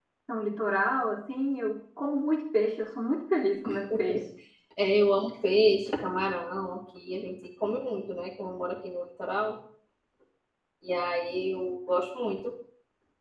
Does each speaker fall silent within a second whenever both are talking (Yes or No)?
Yes